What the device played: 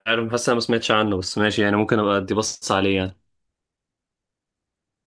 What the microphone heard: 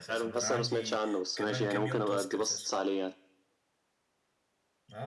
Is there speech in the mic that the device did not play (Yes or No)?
Yes